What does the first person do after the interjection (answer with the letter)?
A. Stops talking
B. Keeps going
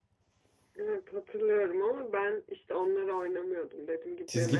A